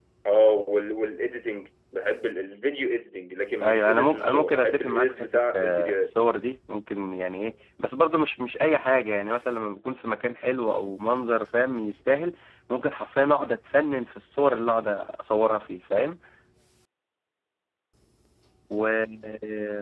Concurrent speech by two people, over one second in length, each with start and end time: 3.6-6.1

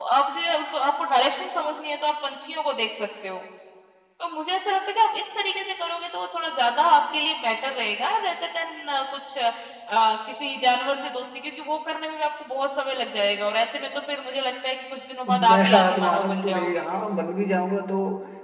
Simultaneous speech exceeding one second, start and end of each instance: 15.5-16.8

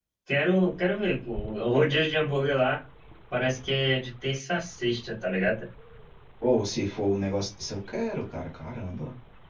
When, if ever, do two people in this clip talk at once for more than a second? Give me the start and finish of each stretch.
none

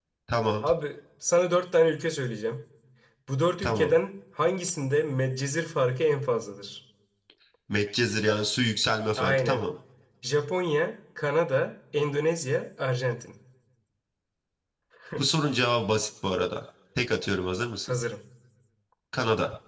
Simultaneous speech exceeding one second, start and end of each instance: none

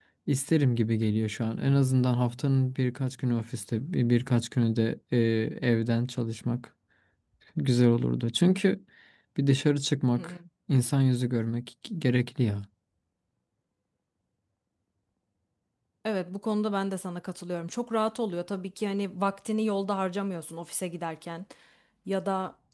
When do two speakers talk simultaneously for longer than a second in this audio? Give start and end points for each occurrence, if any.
none

